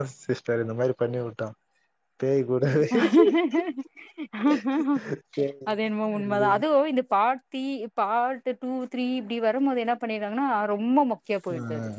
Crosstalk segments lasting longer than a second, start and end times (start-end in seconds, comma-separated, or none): none